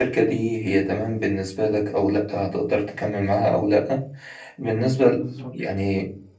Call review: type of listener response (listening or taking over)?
listening